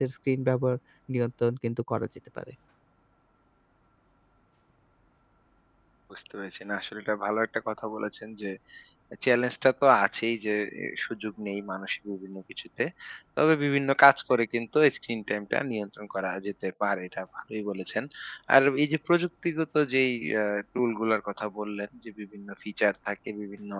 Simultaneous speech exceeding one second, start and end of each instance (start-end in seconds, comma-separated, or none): none